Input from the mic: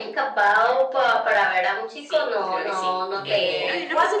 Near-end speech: present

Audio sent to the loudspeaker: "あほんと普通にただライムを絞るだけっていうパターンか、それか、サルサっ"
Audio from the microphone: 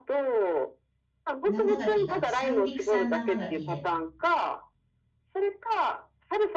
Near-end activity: present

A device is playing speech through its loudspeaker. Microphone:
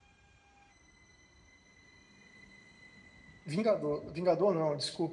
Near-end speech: present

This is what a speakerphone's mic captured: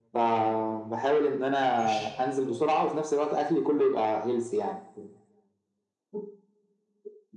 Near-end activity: present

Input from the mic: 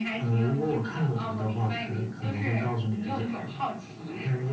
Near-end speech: none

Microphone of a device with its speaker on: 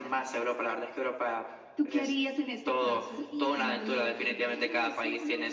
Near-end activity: present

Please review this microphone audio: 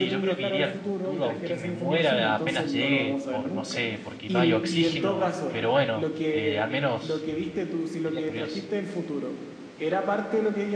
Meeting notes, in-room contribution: present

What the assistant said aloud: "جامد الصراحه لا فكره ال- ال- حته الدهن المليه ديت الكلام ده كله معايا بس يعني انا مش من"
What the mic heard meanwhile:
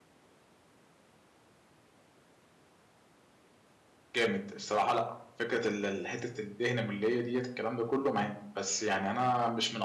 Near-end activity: none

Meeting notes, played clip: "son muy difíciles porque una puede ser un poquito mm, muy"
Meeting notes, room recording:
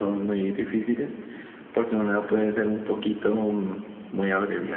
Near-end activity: none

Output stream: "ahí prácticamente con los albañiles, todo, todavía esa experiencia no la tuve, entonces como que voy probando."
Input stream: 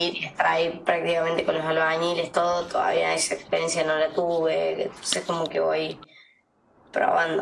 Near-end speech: none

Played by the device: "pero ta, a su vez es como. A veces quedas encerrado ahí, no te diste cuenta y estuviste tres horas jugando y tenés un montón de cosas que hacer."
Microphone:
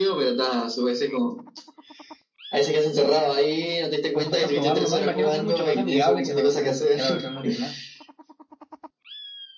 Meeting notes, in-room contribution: present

